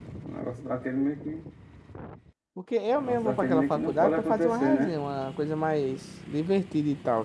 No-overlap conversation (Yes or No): No